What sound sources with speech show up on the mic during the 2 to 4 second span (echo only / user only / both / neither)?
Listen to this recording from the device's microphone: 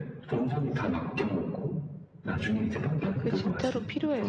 both